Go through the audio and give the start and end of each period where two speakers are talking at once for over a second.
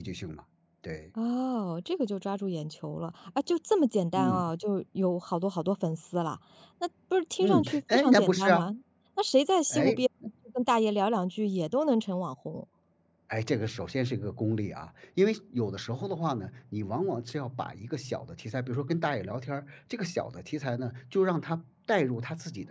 7.4-8.7

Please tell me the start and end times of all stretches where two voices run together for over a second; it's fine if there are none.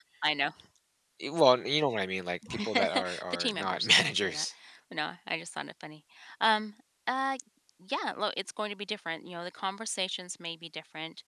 2.5-4.4

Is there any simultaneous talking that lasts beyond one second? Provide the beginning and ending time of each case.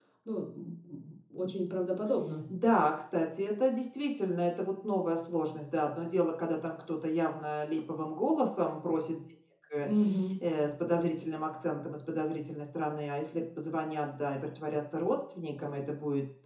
none

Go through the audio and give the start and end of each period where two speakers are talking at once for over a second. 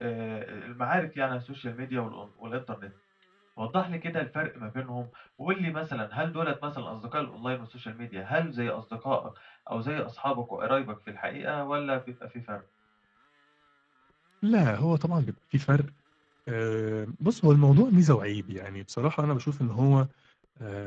none

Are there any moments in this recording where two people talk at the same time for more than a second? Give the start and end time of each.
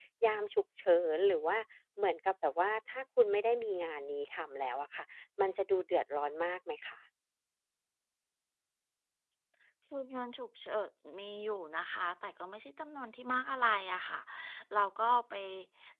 none

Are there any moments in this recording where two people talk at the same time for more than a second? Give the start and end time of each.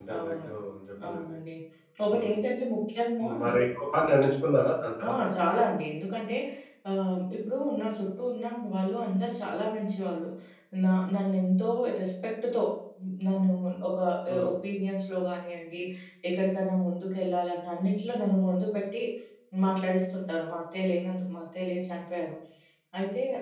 none

